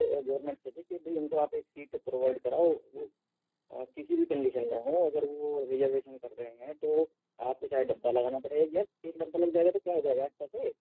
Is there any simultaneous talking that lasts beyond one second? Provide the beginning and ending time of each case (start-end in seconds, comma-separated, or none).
none